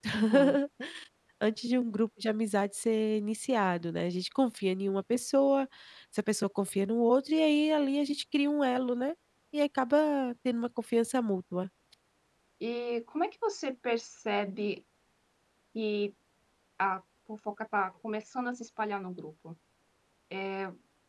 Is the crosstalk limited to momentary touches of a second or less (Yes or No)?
Yes